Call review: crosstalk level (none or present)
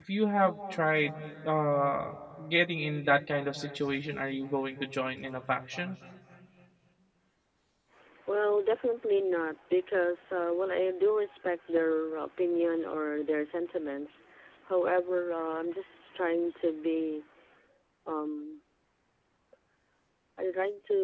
none